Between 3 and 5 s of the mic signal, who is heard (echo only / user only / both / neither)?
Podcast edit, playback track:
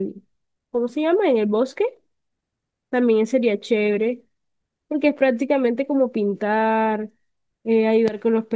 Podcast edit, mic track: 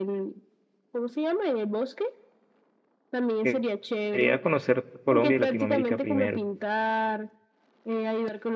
both